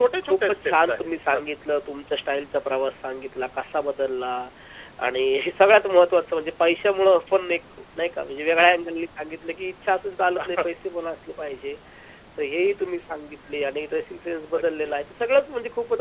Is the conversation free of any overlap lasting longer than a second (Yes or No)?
No